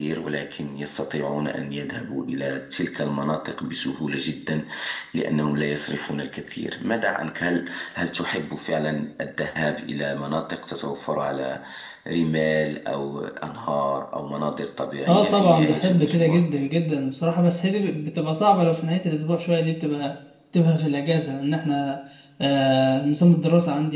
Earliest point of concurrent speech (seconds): 15.1 s

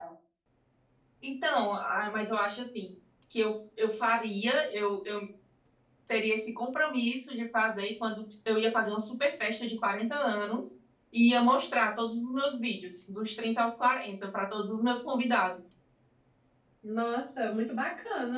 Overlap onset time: none

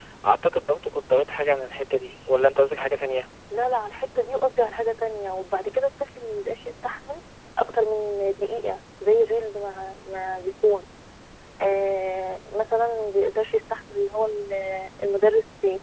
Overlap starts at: none

